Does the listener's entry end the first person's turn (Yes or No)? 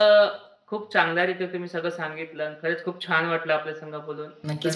Yes